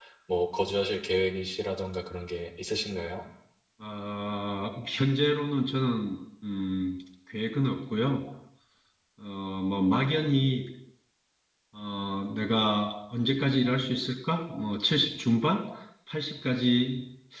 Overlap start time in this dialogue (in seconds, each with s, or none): none